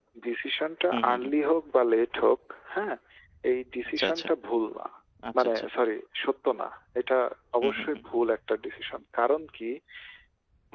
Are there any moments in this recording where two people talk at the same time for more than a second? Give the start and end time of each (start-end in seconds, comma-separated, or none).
none